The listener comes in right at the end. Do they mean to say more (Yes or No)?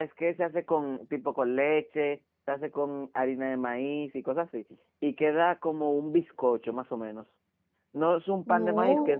No